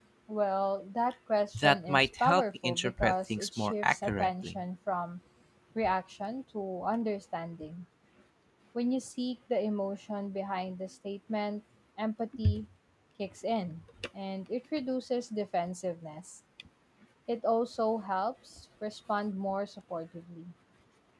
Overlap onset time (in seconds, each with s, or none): 1.6 s